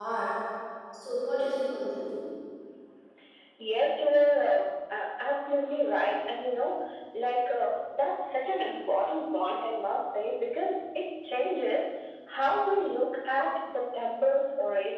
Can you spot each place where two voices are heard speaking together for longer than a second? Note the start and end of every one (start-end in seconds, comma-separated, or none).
none